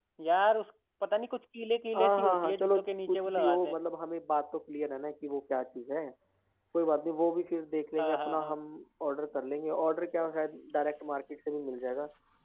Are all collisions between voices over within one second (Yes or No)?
No